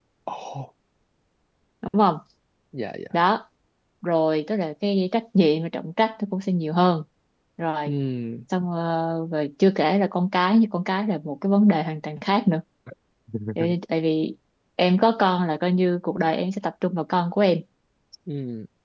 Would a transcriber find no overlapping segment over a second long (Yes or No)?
Yes